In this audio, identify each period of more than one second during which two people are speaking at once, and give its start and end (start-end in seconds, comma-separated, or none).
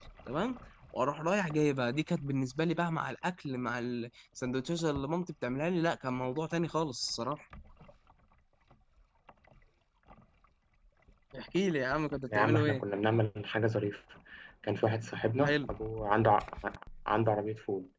none